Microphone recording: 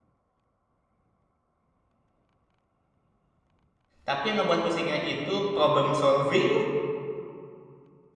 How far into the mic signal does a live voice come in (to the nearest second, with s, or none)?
4 s